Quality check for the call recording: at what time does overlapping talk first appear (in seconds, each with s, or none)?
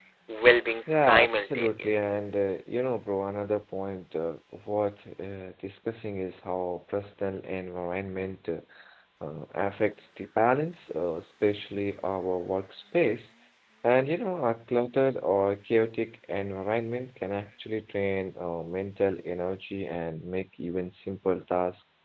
0.9 s